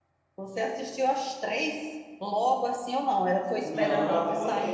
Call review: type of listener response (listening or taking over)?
taking over